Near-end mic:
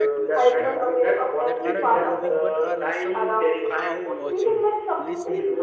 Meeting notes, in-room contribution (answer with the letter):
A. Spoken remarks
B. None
A